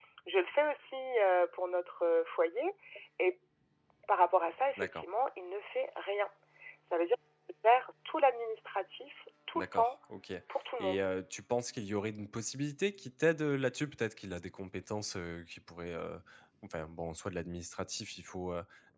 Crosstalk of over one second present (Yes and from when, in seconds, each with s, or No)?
No